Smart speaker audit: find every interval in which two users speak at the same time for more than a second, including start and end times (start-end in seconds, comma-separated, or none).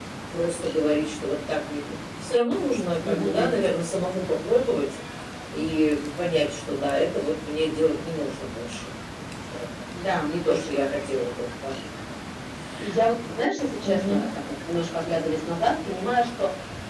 none